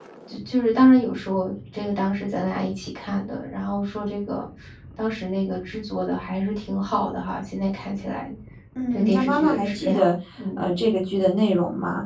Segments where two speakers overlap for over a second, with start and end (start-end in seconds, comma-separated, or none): 8.9-10.1